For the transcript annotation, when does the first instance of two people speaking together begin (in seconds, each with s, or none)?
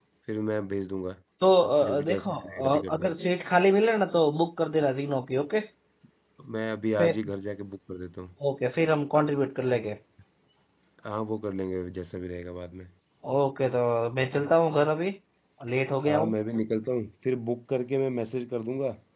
1.8 s